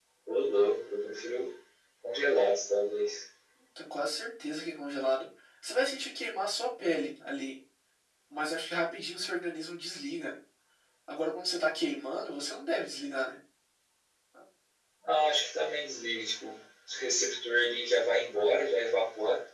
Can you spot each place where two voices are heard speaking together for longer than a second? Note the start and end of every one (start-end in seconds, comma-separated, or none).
none